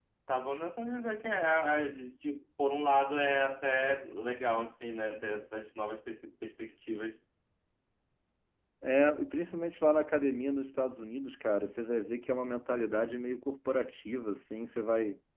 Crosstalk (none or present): none